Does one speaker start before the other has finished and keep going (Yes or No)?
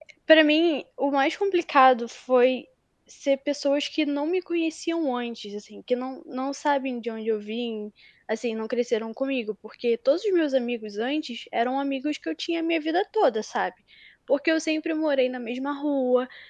No